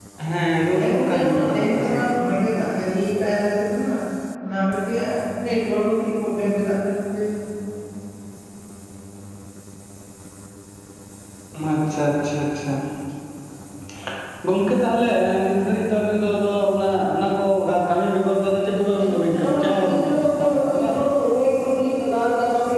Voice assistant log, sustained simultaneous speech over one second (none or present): present